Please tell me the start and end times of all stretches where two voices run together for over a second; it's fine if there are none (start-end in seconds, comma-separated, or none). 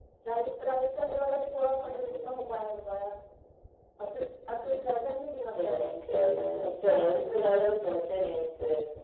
none